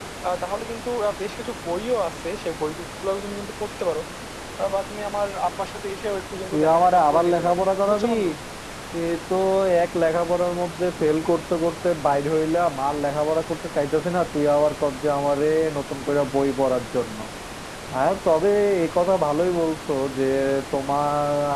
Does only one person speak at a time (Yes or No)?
No